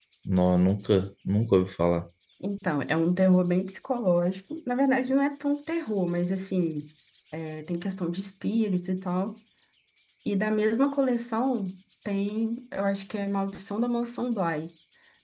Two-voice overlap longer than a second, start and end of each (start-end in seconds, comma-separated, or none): none